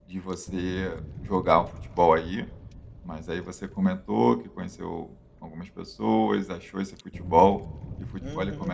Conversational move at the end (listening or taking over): taking over